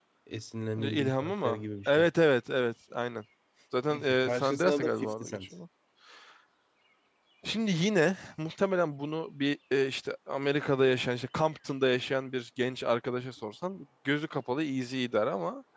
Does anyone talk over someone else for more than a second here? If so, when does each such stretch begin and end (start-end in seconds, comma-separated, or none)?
0.8-2.1, 3.9-5.5